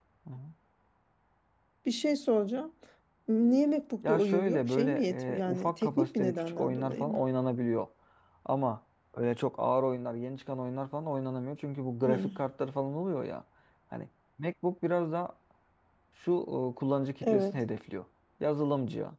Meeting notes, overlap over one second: present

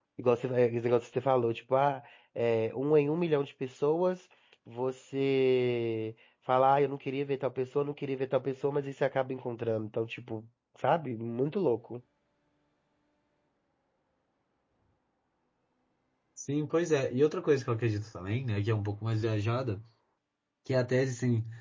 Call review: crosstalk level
none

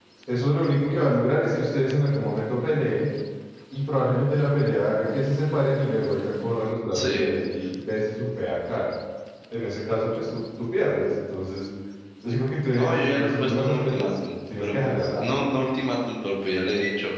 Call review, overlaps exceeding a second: present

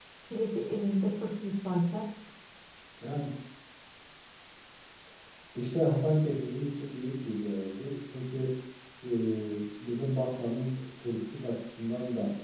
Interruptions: none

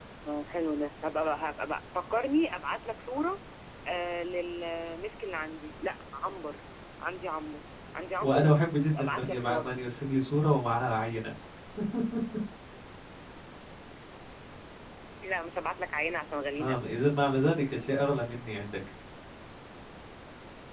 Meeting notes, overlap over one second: present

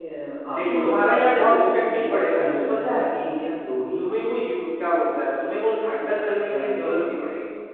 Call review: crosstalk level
present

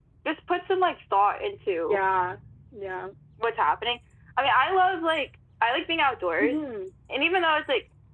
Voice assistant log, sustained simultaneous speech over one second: none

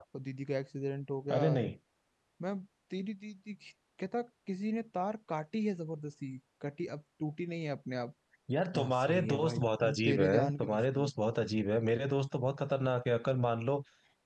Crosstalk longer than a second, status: present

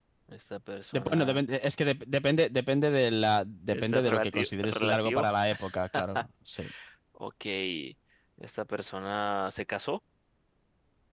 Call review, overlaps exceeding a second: present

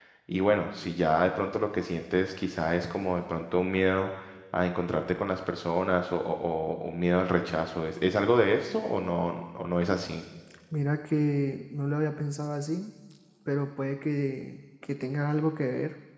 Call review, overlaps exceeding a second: none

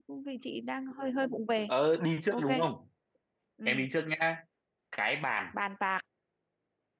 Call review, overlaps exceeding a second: none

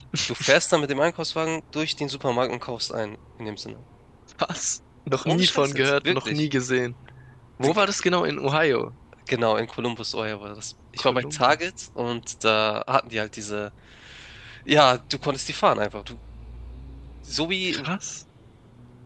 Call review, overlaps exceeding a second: present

